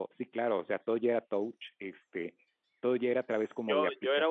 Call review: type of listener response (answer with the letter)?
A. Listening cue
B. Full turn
B